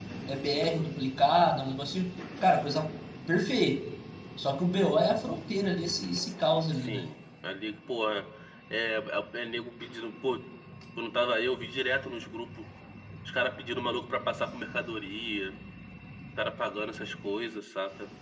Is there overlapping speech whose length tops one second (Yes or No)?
No